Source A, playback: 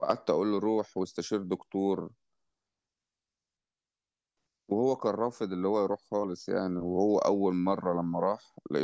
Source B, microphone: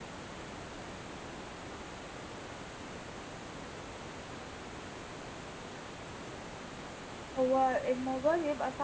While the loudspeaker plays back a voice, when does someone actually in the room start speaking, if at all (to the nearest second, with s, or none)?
7 s